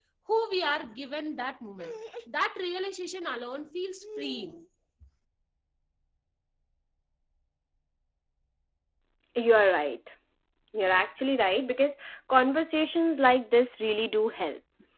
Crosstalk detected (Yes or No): No